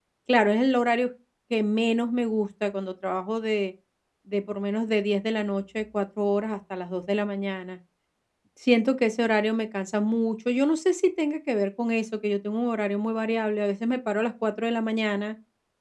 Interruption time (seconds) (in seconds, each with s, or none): none